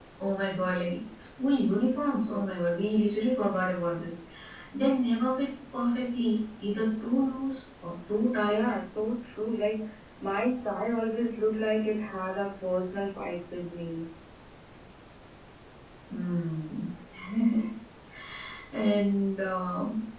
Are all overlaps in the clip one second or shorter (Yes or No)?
Yes